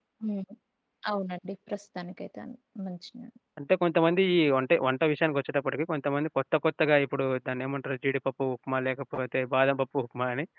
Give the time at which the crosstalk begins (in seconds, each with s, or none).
none